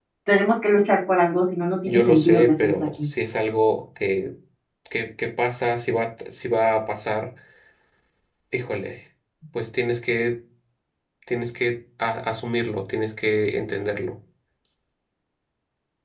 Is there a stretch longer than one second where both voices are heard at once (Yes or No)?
Yes